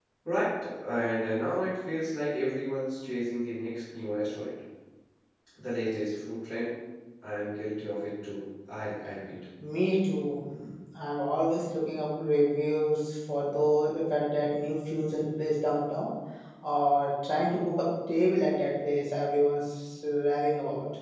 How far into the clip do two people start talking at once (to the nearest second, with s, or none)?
none